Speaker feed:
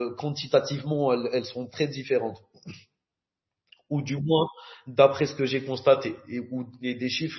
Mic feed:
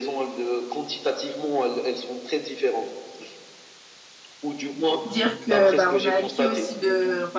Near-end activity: present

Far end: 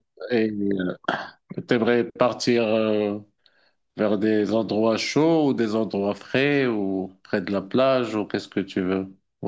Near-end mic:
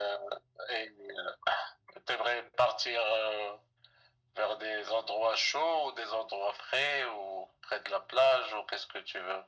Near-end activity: none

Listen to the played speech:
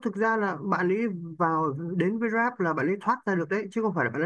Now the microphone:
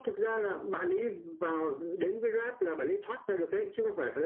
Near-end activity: none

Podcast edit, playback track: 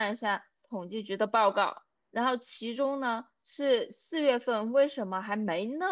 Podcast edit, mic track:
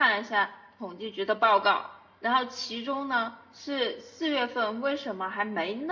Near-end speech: none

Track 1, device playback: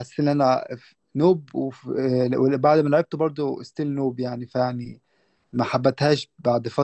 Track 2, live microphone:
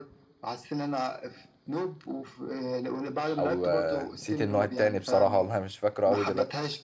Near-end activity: present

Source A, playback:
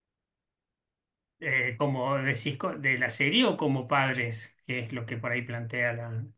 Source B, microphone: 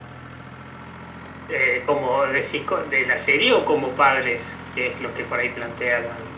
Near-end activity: none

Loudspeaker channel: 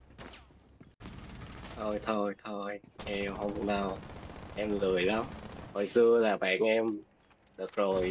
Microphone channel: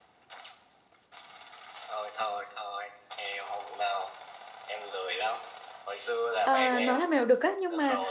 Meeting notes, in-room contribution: present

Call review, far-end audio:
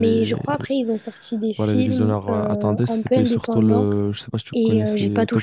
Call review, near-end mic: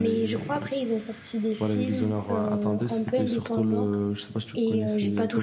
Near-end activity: none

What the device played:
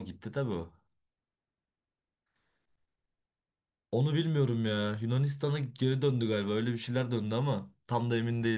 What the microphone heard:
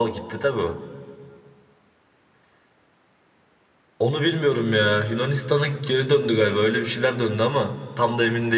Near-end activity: none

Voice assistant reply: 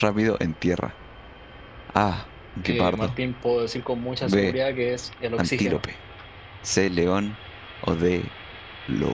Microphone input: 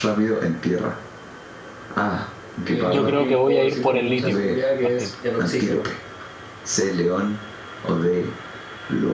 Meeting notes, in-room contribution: present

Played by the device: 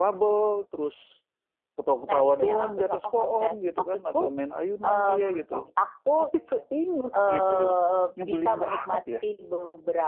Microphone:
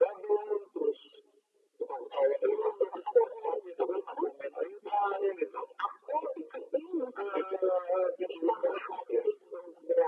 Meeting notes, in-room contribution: none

